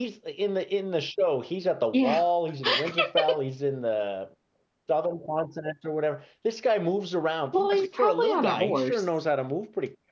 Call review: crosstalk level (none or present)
present